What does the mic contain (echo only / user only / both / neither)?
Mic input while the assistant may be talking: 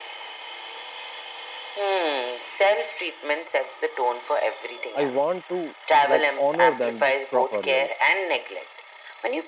both